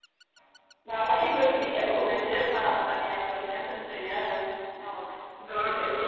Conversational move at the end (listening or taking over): taking over